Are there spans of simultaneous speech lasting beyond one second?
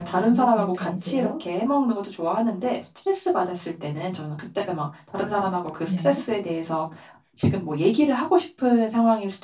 Yes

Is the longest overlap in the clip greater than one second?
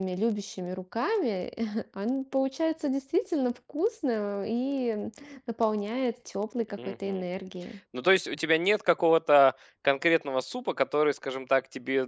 No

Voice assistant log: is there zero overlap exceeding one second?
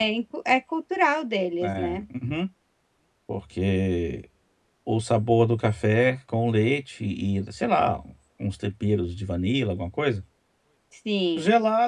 Yes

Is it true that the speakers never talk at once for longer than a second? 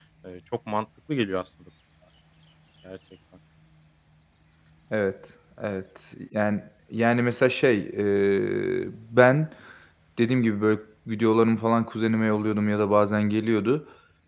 Yes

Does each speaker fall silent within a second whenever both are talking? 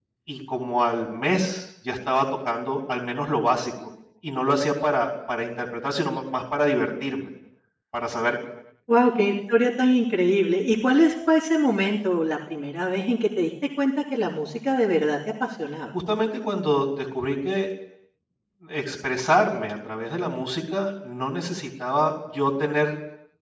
Yes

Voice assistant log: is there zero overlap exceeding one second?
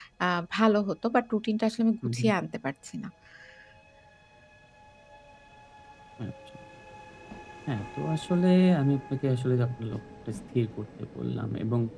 Yes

